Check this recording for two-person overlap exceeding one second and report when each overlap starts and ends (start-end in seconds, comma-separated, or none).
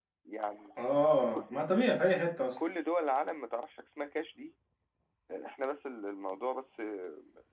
none